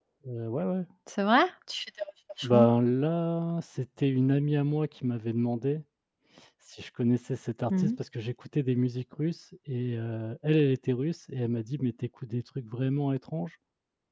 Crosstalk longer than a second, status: none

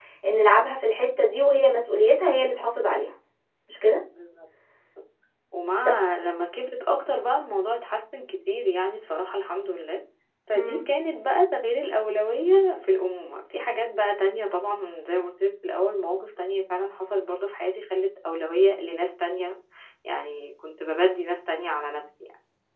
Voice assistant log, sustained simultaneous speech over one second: none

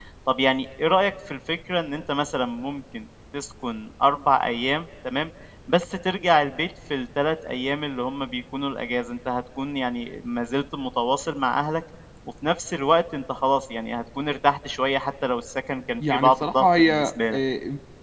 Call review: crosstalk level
present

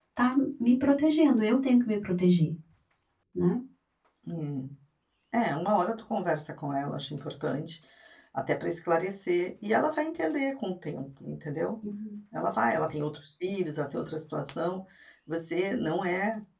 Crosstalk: none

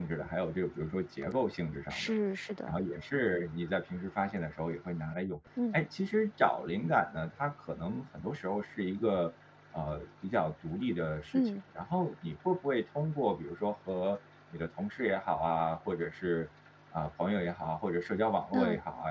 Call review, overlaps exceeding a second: none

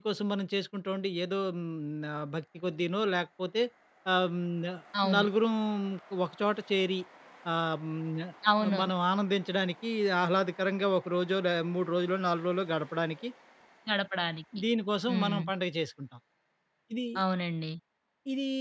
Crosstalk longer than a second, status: none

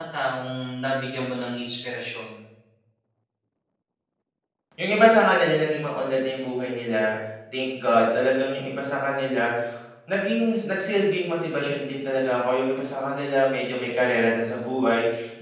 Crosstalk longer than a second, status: none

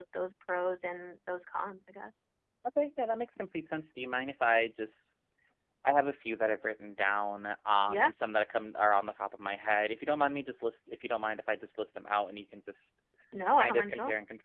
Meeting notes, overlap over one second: none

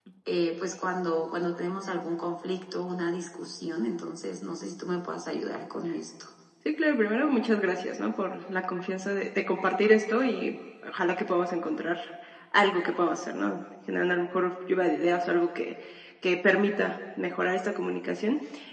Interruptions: none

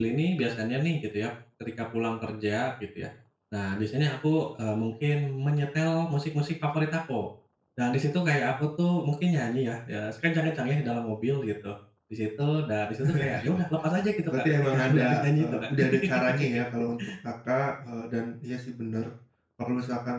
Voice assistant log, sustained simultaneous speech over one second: present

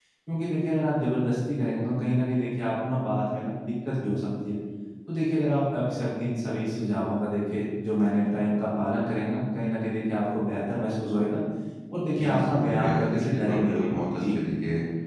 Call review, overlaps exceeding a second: present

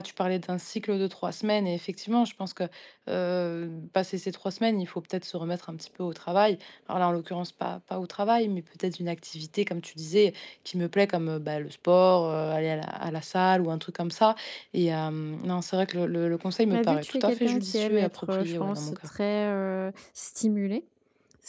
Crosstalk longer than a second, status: present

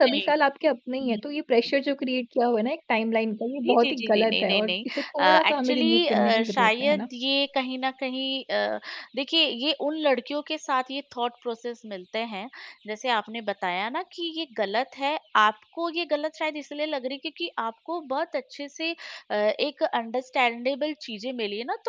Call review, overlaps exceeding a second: present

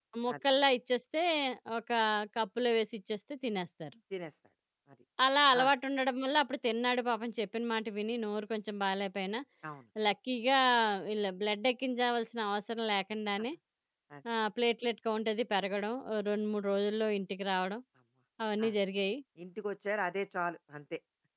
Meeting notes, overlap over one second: none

